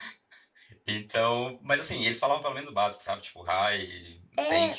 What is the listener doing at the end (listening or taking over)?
taking over